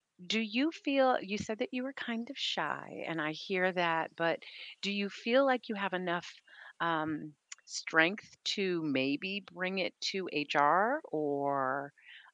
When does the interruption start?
none

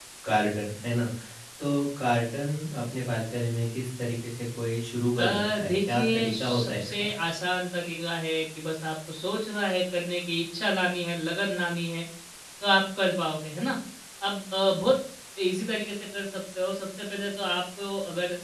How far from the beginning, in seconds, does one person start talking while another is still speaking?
5 s

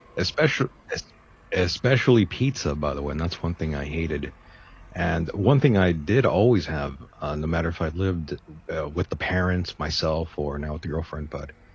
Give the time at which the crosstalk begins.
none

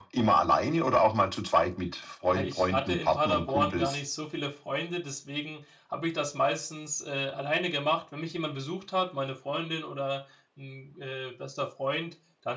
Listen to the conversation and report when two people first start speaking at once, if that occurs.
2 s

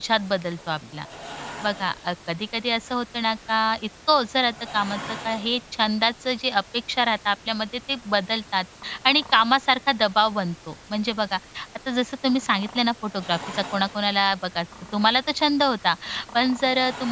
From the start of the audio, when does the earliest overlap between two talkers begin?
none

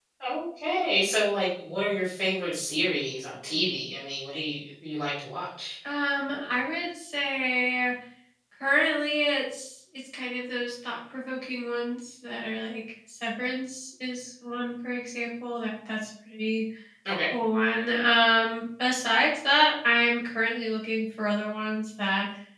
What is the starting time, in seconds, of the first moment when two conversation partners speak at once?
none

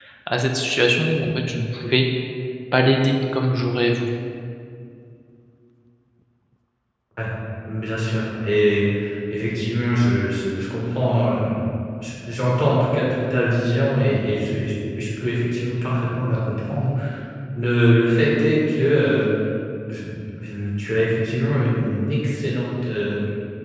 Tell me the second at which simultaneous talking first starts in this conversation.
none

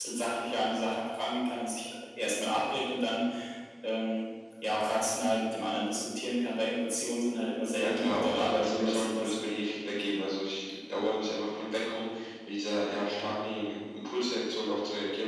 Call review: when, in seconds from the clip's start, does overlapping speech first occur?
8 s

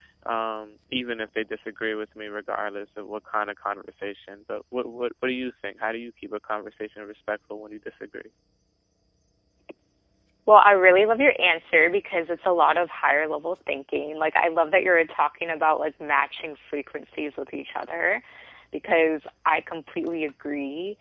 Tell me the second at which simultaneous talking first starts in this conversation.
none

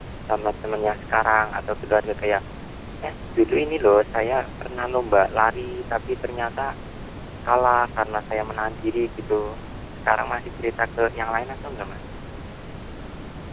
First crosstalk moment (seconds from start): none

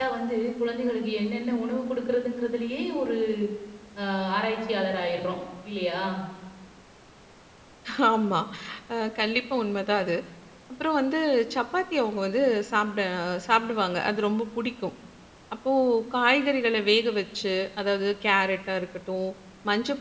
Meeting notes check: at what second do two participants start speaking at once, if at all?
none

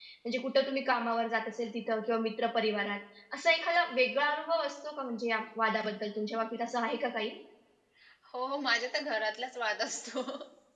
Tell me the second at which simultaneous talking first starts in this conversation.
none

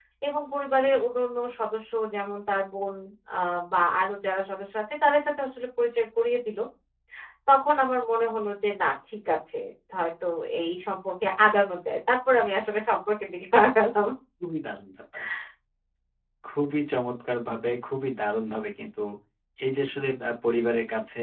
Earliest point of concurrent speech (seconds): none

